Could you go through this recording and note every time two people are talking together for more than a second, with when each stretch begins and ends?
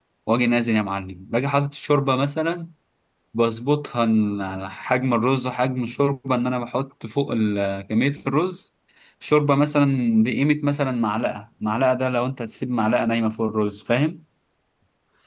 none

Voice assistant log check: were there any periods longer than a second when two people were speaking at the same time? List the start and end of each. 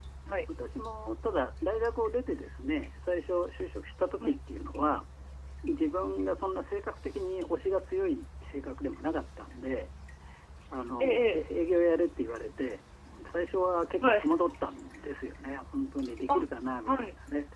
none

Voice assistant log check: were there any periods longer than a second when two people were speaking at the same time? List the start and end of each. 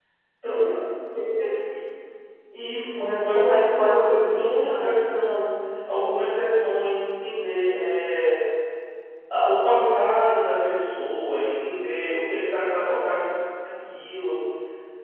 3.4-4.9

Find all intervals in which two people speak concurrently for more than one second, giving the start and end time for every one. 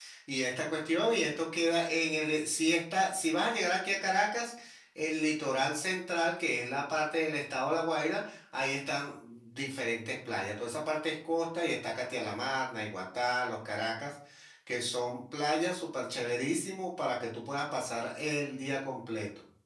none

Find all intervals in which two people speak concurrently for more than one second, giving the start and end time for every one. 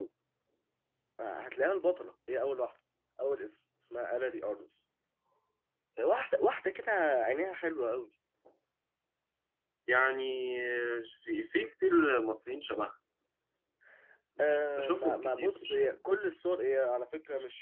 14.7-15.9

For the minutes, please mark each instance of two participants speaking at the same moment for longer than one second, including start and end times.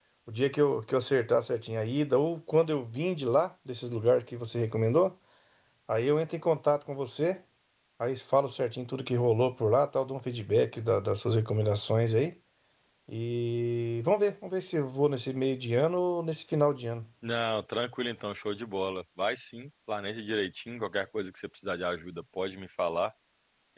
none

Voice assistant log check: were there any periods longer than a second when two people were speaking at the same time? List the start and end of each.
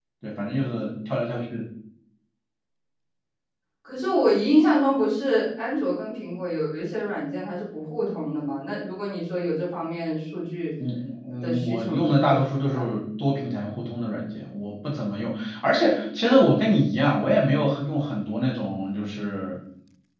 11.4-12.9

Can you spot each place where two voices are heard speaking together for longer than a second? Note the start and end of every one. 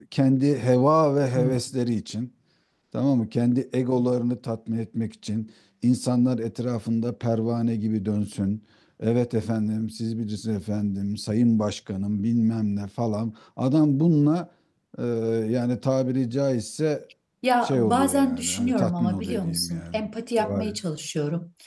17.6-20.0

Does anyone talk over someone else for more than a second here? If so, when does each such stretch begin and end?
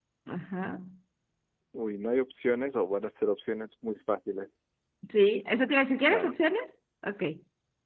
none

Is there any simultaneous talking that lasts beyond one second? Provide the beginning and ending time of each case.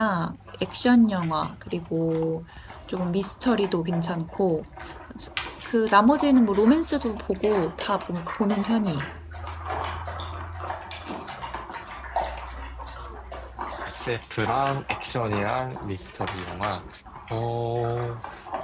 none

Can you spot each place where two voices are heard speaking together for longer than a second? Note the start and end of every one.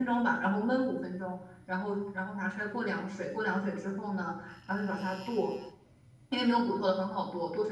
none

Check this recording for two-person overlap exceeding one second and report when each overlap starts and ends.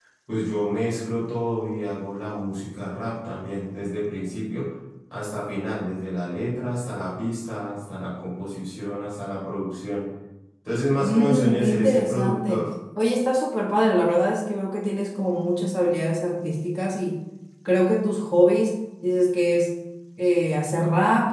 11.0-12.7

